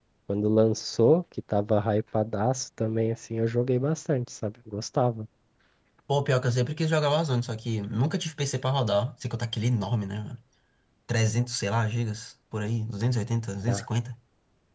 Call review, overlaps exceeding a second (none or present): none